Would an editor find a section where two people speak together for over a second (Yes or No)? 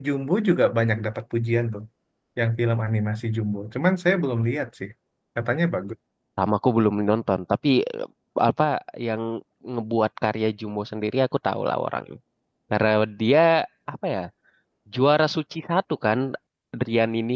No